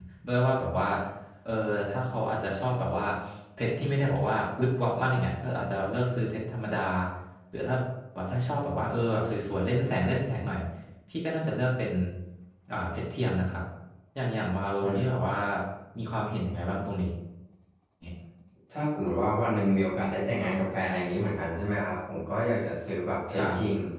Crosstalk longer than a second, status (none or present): none